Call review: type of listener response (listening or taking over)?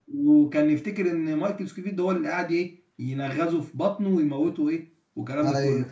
taking over